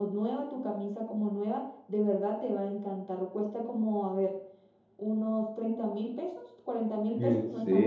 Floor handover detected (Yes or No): Yes